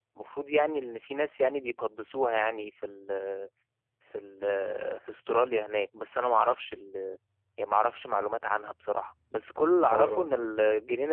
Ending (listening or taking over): listening